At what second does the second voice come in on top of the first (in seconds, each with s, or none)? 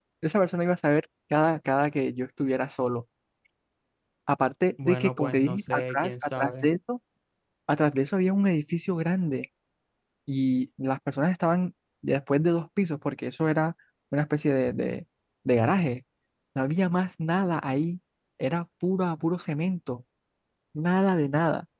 4.8 s